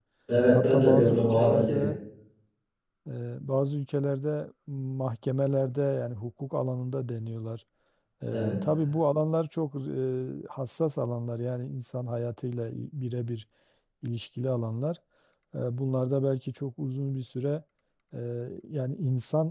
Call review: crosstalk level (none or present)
present